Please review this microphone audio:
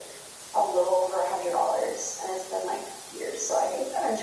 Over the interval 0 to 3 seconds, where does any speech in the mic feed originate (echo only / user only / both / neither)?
echo only